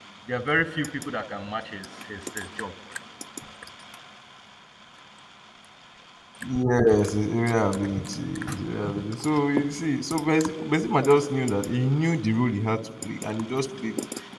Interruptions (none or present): none